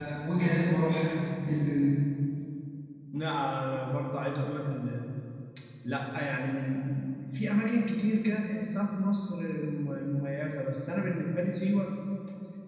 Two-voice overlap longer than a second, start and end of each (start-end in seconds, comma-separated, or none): none